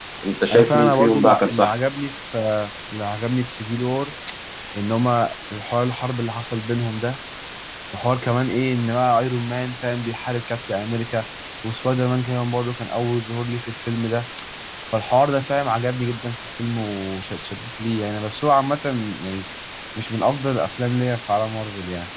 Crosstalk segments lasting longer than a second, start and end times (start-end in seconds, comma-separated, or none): 0.5-1.8